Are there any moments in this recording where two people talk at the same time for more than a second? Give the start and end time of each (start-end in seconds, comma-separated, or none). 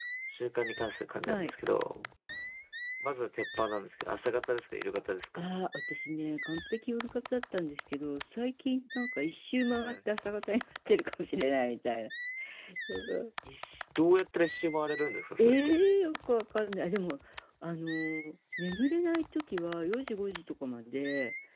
none